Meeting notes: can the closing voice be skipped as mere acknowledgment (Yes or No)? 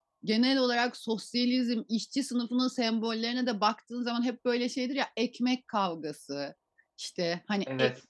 Yes